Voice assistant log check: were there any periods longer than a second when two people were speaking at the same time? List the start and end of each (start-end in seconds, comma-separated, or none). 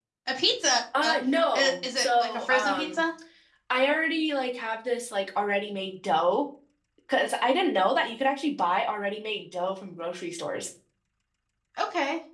1.5-3.0